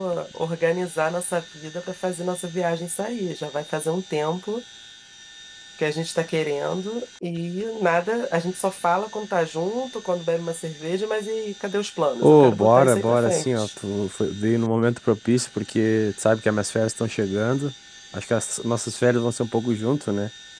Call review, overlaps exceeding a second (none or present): present